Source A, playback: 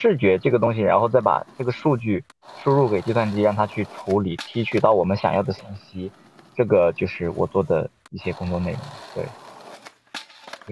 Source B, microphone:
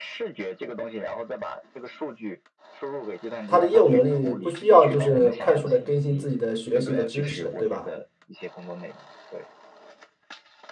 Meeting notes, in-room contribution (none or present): present